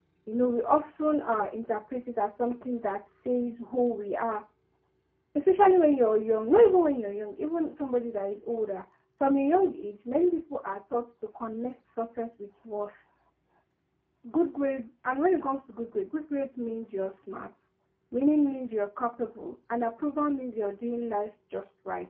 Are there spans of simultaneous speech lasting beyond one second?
No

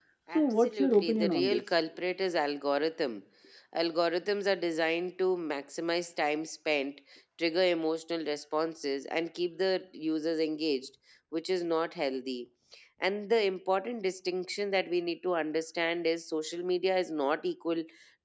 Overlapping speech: Yes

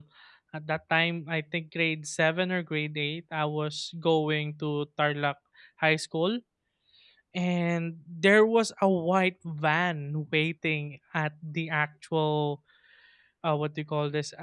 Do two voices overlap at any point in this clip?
No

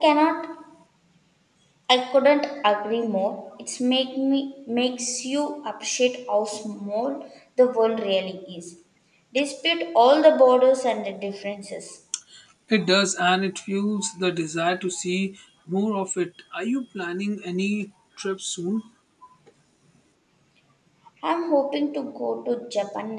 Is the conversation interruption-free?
Yes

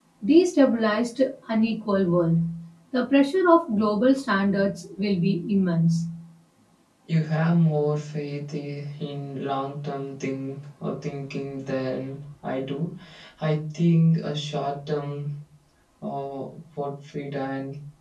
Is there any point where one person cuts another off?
No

